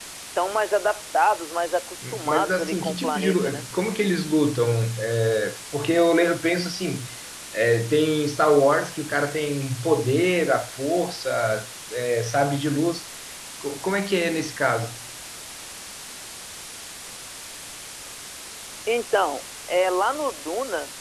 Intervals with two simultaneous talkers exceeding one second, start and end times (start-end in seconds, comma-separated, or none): 2.1-3.6